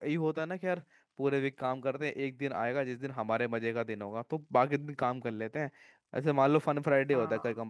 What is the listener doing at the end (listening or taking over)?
listening